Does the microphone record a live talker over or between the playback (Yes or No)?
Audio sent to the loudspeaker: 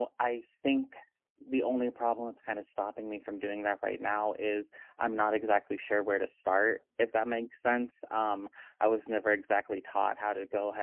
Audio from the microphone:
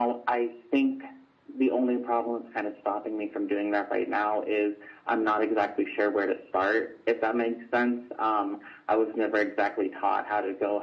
No